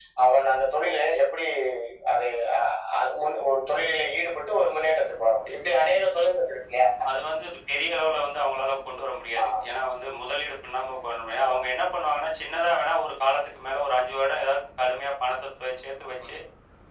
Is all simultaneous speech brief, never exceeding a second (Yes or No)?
Yes